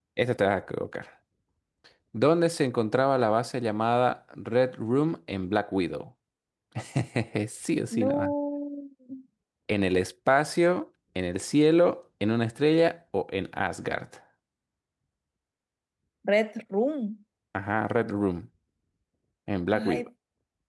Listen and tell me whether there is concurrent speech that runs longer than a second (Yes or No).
No